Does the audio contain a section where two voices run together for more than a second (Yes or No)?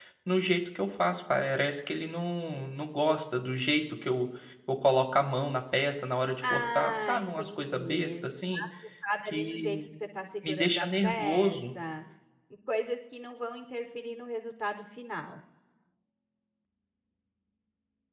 Yes